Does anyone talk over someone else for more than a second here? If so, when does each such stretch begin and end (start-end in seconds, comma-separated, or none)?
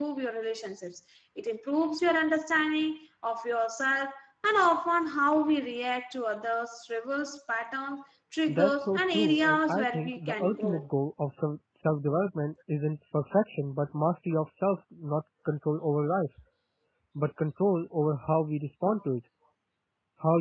8.5-10.9